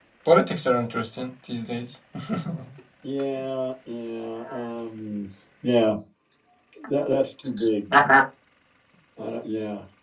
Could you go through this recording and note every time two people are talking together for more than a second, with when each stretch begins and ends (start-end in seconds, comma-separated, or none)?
none